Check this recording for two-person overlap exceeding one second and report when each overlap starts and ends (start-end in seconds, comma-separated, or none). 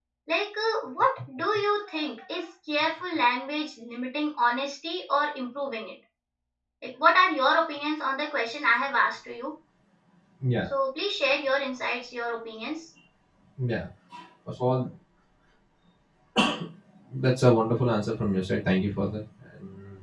none